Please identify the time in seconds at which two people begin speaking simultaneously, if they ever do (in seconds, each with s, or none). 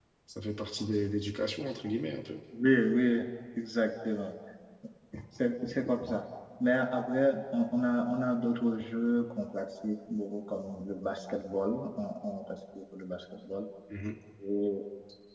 none